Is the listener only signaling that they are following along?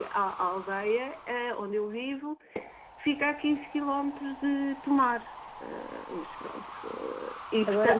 Yes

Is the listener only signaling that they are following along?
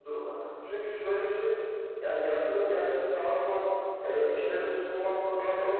Yes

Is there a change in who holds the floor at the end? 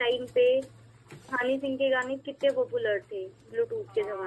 Yes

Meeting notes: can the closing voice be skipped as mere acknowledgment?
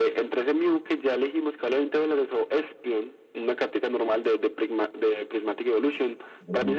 Yes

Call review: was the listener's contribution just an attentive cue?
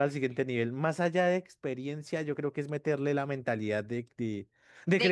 Yes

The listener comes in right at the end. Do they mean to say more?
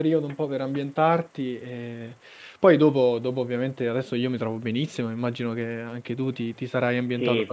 Yes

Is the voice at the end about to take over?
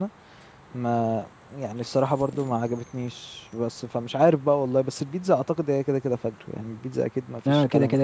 Yes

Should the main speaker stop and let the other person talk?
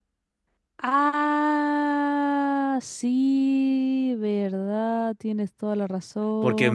Yes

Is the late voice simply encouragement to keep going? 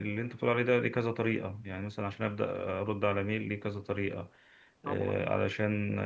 Yes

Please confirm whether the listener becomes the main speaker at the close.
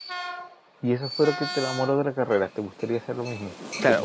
Yes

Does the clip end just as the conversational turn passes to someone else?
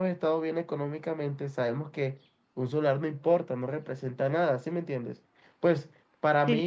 No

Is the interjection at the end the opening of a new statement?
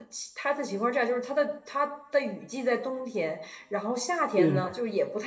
No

